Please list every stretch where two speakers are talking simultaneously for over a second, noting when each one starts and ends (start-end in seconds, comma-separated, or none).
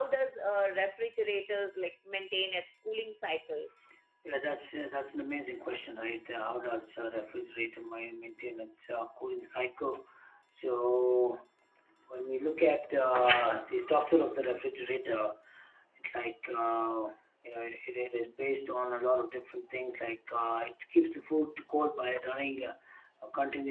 none